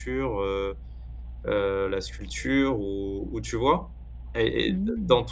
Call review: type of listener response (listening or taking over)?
listening